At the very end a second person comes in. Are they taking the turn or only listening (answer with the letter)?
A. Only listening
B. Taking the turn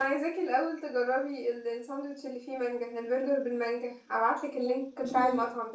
B